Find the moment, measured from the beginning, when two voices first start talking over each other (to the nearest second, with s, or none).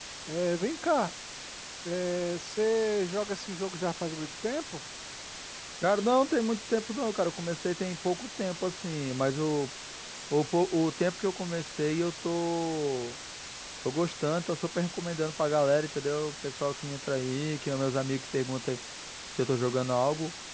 none